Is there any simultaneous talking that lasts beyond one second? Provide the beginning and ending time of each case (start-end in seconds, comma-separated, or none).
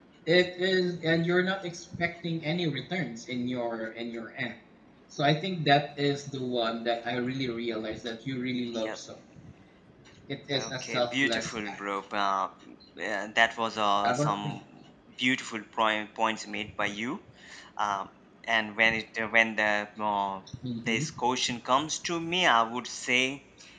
10.5-11.8